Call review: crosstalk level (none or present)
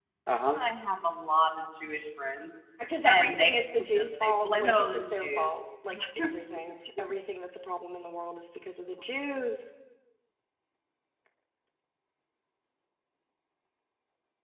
present